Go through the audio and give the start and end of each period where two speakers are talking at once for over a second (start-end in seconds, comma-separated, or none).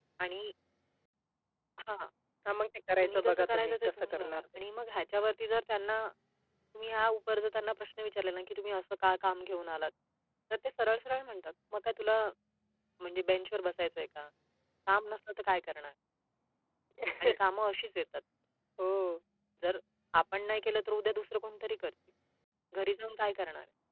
3.0-4.6